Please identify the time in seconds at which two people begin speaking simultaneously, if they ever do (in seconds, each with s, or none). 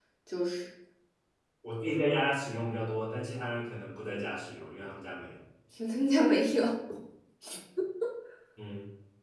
none